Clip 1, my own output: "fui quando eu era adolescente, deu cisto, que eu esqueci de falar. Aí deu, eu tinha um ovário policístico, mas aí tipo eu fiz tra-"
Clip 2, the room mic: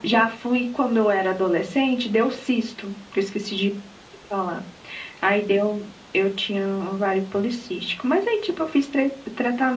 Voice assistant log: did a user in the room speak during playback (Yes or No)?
No